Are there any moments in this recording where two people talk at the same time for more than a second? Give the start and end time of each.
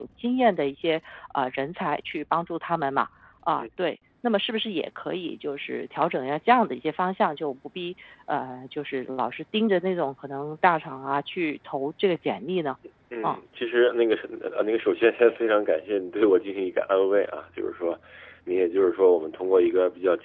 none

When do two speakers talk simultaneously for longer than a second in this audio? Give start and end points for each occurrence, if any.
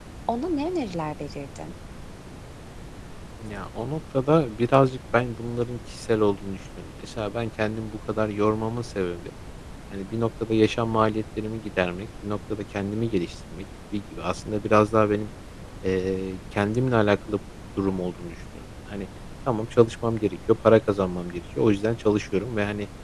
none

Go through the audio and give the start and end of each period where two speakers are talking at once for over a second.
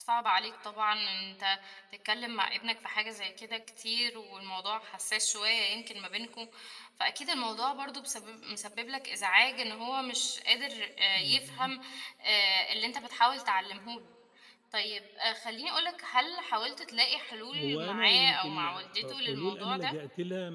17.5-19.9

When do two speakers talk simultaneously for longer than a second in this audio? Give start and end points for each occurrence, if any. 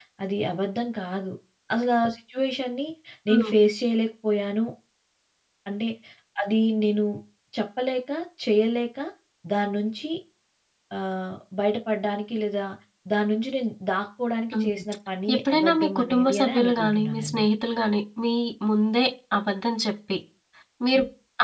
15.3-17.5

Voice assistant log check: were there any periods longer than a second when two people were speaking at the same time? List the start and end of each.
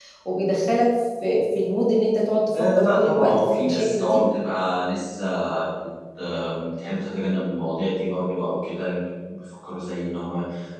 2.8-4.2

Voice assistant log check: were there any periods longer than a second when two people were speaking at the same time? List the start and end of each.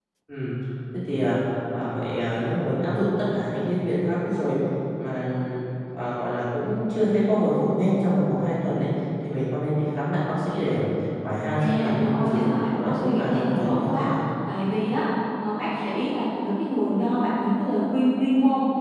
11.6-14.1

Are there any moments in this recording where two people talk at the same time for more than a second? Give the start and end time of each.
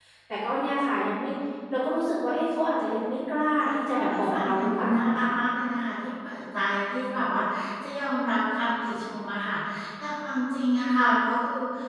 3.6-5.3

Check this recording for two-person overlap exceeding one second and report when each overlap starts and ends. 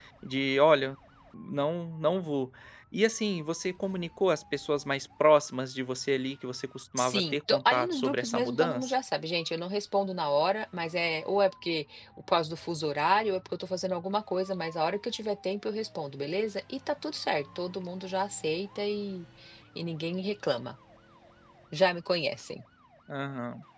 7.0-8.9

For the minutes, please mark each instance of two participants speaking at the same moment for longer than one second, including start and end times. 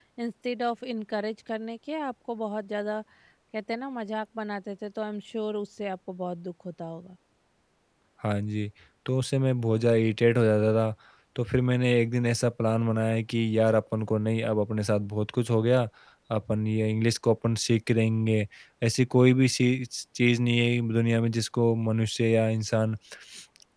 none

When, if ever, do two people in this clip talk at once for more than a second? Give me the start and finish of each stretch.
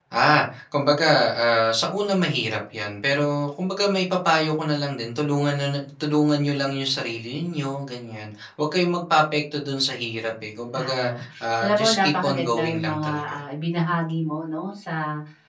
11.6-13.4

